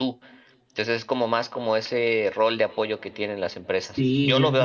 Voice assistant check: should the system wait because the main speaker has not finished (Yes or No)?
No